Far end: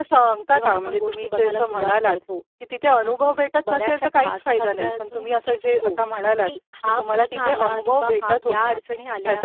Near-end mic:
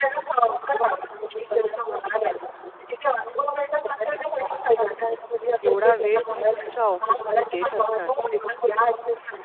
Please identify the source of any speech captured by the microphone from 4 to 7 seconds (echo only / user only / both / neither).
both